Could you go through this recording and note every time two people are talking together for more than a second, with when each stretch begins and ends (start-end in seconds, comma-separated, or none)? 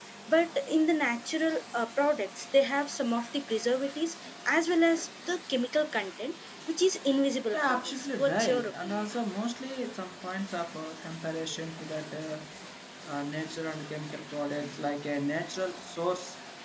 7.5-9.1